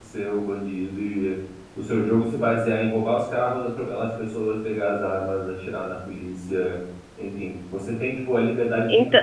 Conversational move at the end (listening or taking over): listening